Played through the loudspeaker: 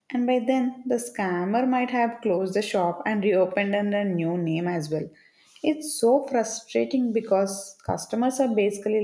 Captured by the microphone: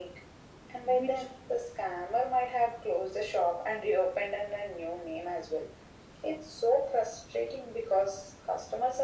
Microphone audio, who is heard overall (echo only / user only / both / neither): both